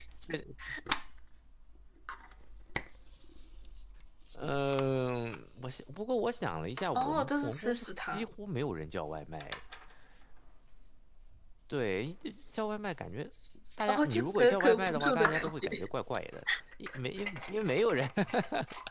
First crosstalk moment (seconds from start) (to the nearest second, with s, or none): 7 s